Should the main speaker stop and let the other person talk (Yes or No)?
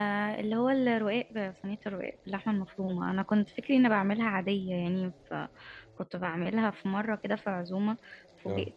No